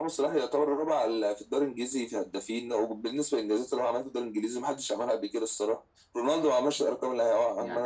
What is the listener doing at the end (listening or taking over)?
taking over